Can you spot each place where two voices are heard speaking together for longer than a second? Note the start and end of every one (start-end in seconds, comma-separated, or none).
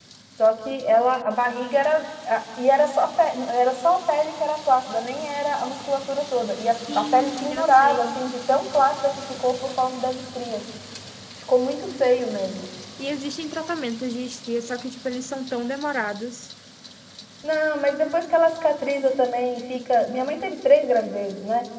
7.0-8.2